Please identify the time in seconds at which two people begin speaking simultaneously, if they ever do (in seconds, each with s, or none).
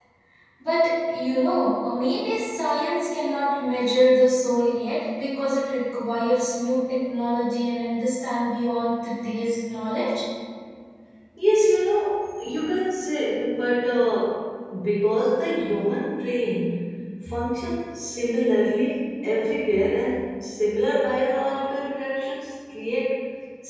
none